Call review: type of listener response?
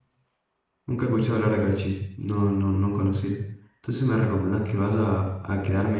listening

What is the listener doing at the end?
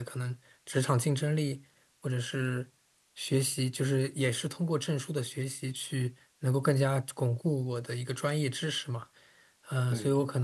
listening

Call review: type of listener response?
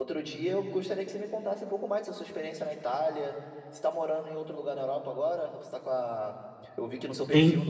listening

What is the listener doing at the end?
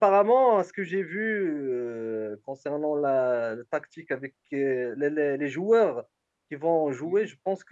listening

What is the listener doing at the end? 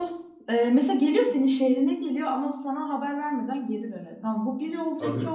listening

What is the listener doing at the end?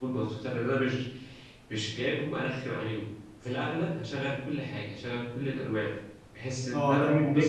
taking over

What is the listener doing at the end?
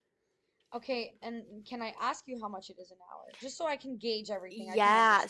taking over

